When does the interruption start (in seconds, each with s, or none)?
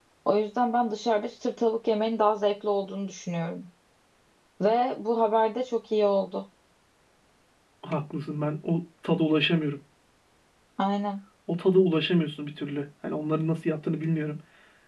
none